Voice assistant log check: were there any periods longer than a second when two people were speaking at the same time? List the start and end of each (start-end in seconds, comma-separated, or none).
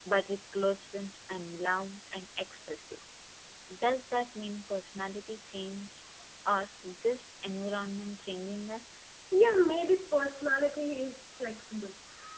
none